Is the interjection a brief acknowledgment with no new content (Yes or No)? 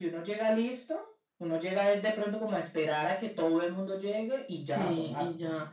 No